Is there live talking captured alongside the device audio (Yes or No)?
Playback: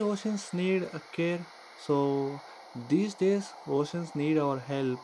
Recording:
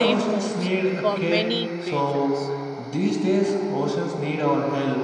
Yes